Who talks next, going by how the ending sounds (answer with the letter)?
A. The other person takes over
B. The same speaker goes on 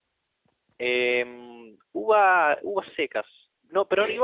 B